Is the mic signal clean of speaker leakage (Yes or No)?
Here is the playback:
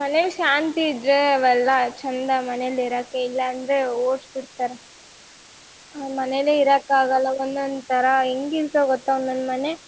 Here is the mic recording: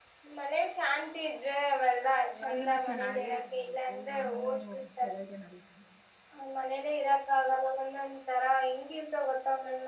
No